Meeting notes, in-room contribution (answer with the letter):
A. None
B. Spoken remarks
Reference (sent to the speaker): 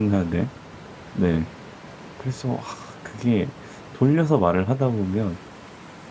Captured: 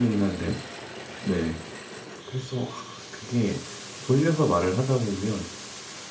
A